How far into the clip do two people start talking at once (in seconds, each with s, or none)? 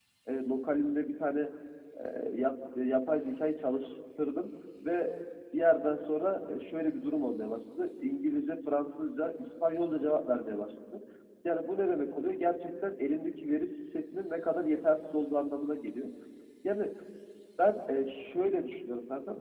none